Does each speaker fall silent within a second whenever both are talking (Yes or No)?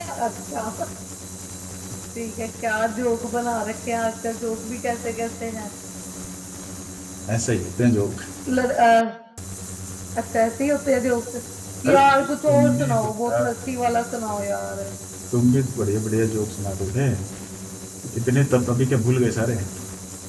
No